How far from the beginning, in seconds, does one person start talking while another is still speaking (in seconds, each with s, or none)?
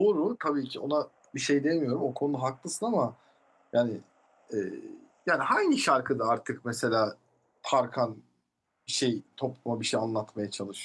none